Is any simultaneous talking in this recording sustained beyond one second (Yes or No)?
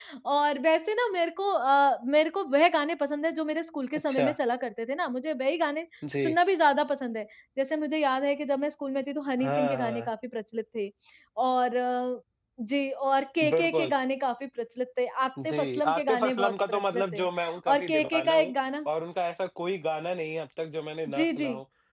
Yes